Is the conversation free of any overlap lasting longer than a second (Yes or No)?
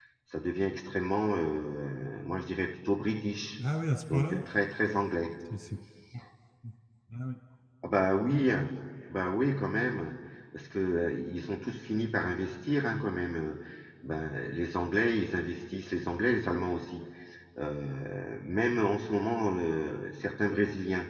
Yes